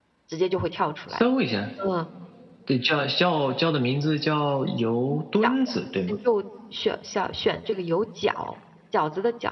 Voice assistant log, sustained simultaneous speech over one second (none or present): none